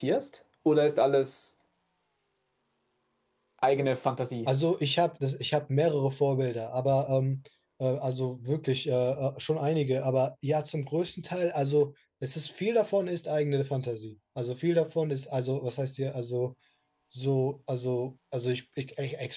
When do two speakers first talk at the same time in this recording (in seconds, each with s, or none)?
none